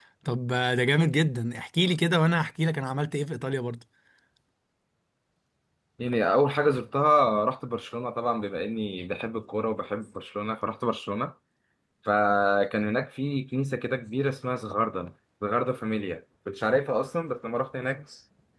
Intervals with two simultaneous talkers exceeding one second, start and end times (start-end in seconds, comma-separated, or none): none